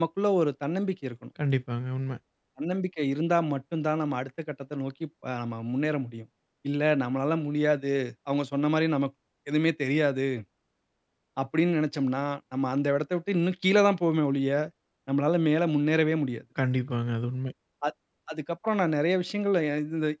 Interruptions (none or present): none